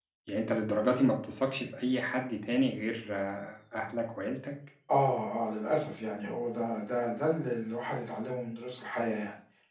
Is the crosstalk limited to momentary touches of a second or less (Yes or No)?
Yes